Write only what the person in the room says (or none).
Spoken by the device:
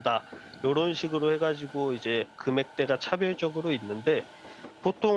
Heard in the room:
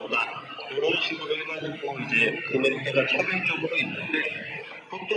none